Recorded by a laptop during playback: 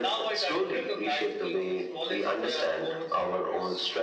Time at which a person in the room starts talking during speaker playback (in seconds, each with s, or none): none